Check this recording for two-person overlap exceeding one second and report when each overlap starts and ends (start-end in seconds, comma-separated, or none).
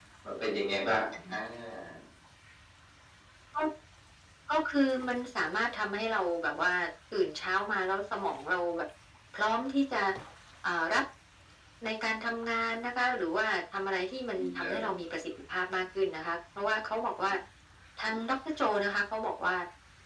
none